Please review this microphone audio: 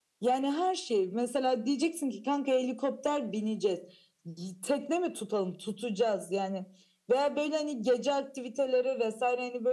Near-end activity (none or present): none